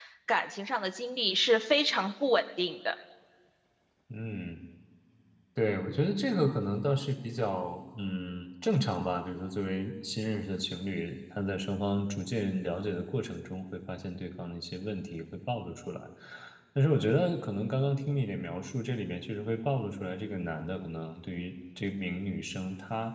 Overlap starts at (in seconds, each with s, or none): none